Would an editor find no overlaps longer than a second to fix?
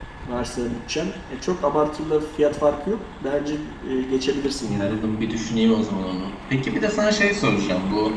Yes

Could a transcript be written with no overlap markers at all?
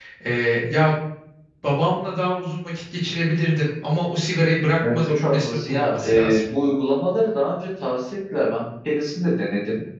No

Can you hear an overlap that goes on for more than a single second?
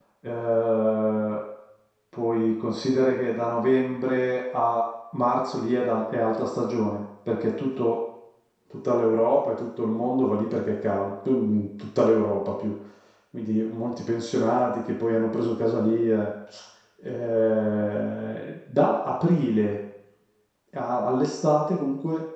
No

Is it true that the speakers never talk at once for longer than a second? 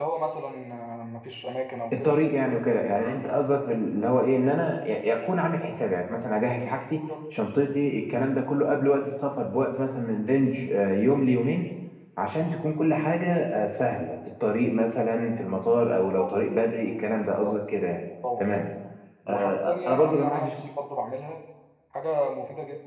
No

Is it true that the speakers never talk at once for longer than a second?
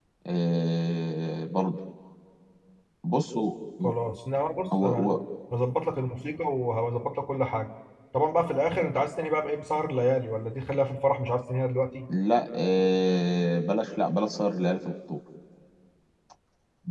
Yes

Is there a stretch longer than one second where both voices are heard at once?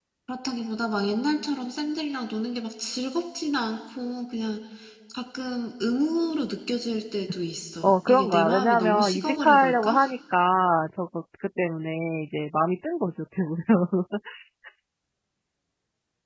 Yes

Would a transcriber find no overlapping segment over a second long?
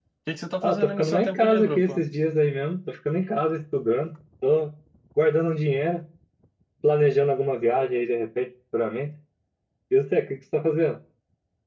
No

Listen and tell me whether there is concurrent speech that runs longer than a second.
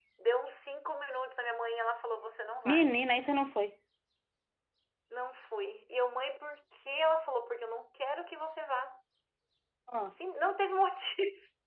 No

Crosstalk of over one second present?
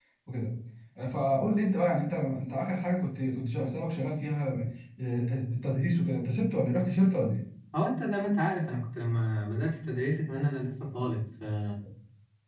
No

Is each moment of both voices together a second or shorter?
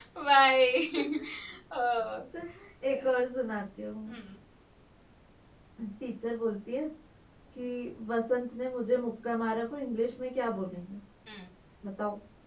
Yes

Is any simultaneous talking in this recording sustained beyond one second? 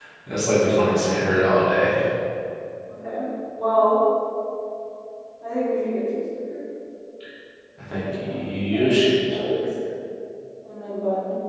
Yes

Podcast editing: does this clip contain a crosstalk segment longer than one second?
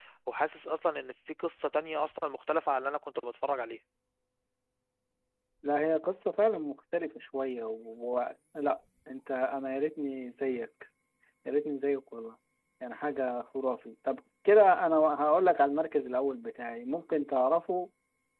No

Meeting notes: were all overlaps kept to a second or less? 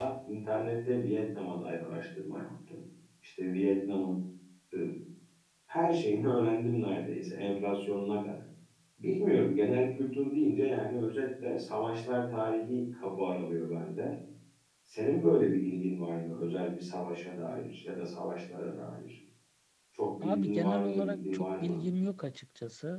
No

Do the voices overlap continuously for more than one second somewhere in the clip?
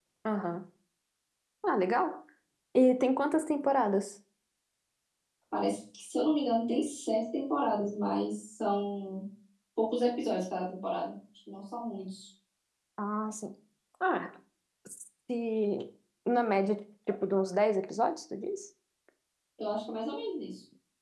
No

